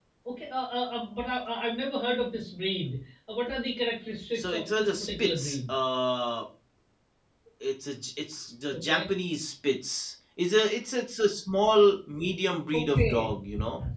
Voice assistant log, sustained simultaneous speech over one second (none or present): present